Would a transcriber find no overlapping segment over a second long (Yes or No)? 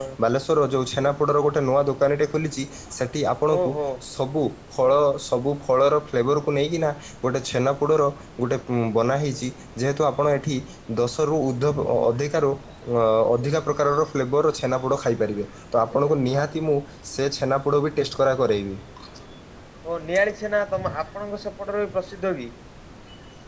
Yes